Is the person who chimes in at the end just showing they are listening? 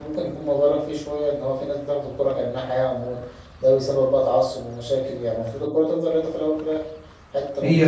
Yes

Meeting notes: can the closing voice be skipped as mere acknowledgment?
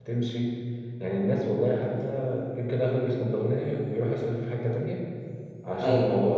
Yes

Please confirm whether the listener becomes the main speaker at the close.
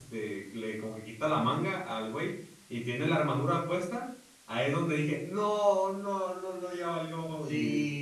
Yes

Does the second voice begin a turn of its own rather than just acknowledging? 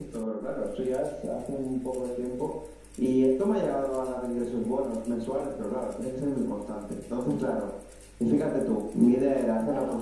Yes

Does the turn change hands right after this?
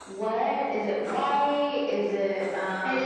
Yes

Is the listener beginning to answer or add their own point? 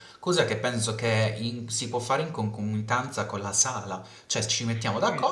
No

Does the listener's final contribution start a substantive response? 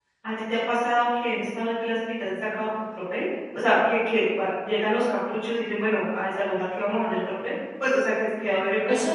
Yes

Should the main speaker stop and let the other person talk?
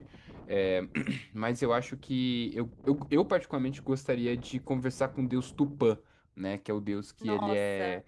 No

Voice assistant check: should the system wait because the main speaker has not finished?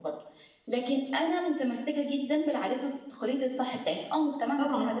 Yes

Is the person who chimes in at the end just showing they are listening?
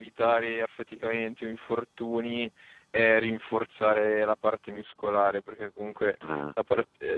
Yes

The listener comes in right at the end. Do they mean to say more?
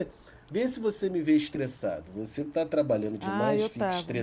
Yes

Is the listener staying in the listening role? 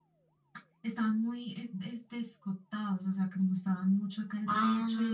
Yes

